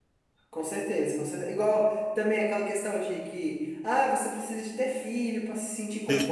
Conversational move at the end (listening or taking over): taking over